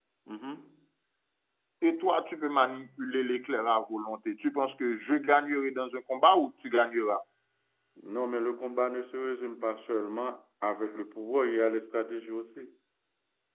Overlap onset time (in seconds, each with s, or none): none